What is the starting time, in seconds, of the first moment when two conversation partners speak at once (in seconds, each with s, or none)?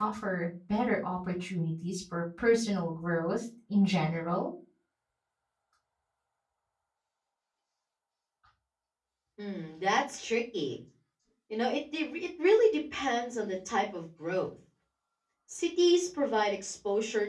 none